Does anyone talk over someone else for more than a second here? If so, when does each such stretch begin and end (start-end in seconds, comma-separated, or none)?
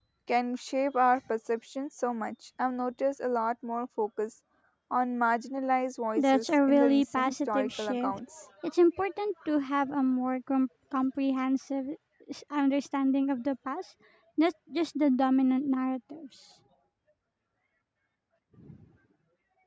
6.2-8.2